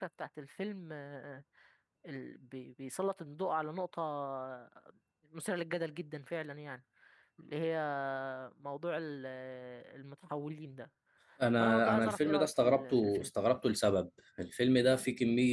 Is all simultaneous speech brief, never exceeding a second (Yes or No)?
No